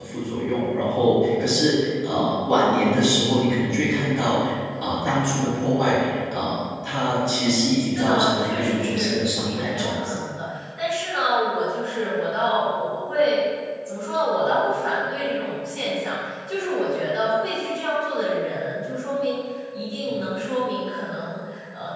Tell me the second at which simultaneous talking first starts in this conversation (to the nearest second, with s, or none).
8 s